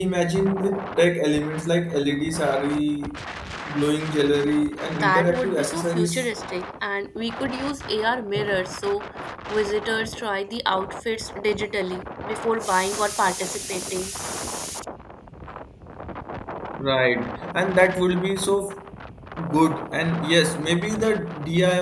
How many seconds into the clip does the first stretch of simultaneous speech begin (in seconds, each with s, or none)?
4.9 s